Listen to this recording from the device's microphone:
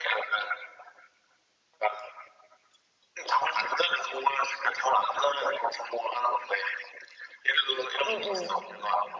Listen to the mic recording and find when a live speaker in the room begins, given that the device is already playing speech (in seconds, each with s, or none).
8.0 s